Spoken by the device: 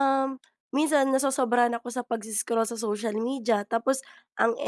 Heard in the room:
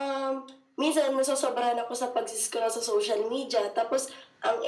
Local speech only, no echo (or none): none